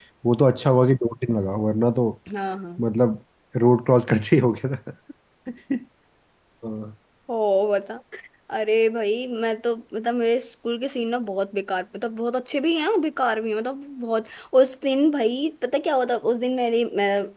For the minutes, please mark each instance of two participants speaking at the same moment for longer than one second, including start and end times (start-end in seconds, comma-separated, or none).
none